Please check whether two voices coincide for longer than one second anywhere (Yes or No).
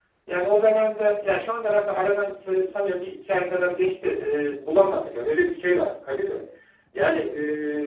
No